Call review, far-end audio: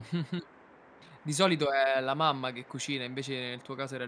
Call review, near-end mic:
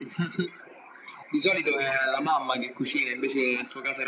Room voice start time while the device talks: none

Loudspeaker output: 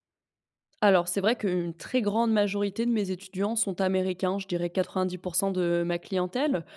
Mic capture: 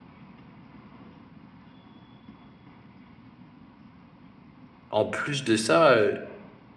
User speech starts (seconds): 4.9 s

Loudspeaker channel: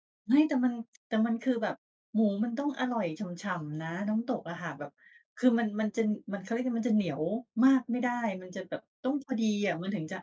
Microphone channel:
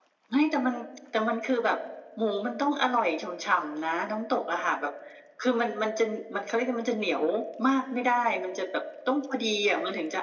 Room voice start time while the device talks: none

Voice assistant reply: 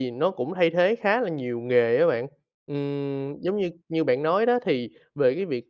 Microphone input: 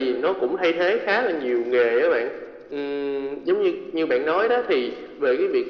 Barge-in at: none

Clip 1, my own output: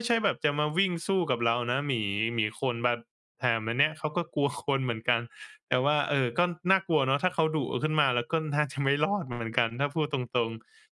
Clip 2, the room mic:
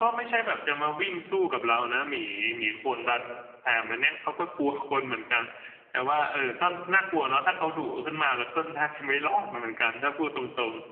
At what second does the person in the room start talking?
none

